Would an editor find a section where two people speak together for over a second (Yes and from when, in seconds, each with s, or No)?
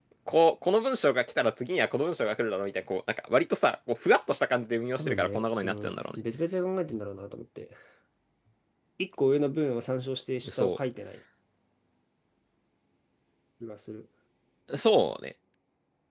Yes, from 5.0 s